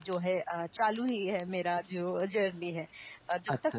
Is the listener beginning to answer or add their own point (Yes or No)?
Yes